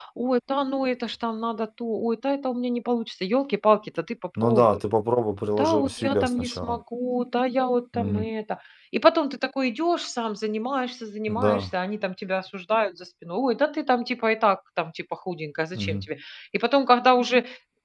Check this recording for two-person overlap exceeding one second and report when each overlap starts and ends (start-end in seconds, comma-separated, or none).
5.6-6.8